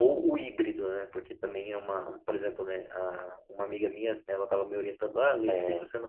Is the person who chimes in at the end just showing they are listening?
Yes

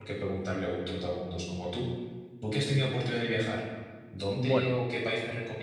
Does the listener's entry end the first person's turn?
No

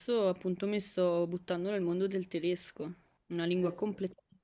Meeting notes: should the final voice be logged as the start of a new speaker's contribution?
No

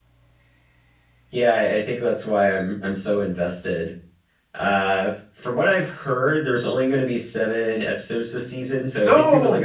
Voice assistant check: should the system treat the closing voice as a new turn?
No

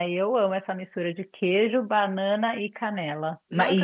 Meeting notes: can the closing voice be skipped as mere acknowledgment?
No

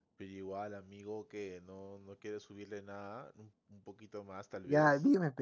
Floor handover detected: Yes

